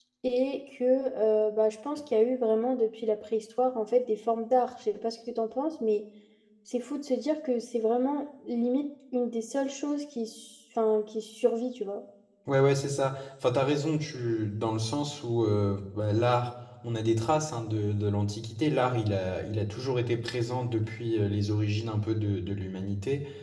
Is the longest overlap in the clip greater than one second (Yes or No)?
No